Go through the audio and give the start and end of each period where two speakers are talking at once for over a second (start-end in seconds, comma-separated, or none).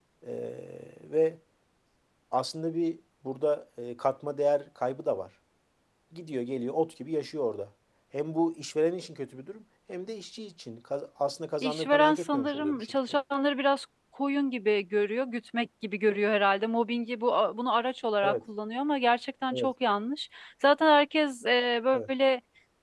11.6-12.9